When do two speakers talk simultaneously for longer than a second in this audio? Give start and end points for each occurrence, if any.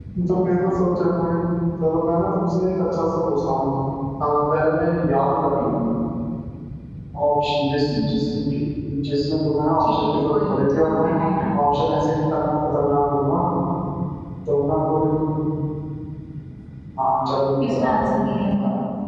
9.8-11.1

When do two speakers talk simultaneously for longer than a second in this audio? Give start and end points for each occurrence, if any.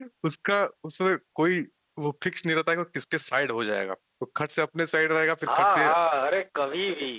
none

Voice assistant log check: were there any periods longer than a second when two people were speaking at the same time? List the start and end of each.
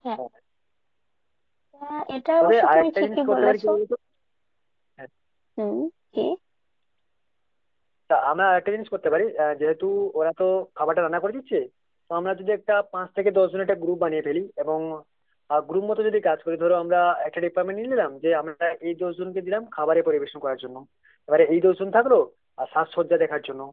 2.4-3.6

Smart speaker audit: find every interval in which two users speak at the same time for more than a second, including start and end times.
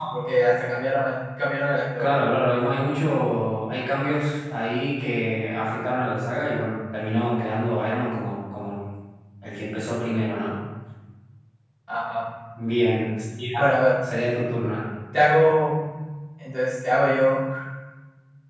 none

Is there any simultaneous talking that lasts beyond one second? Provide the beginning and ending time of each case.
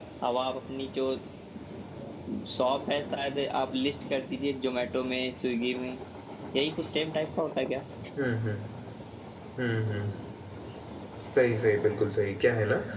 none

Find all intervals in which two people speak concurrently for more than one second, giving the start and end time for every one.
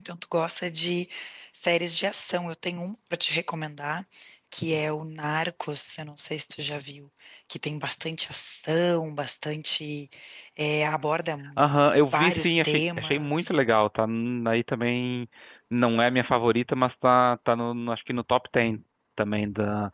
12.1-13.6

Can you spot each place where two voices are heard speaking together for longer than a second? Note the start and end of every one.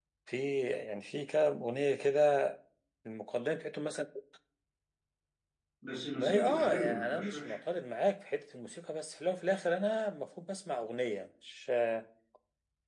6.2-7.6

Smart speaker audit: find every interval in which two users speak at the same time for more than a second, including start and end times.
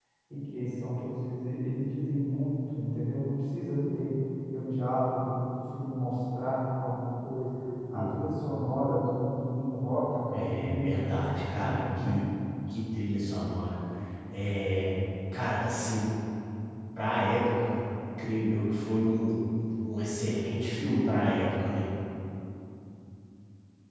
10.3-12.2

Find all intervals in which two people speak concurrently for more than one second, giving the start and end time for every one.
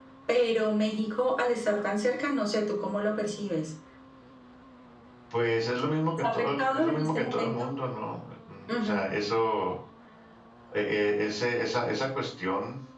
6.2-7.5

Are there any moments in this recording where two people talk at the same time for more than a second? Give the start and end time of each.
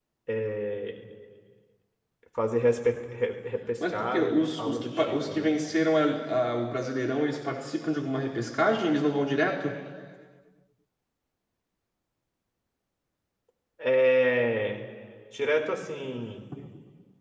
3.9-5.5

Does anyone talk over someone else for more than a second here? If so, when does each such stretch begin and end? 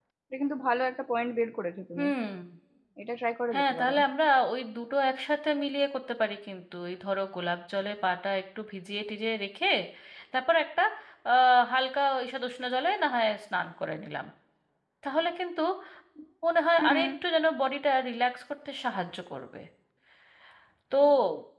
none

